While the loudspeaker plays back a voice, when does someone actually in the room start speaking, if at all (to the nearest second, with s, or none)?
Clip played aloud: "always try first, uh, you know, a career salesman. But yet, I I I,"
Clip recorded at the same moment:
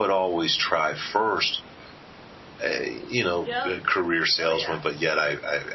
3 s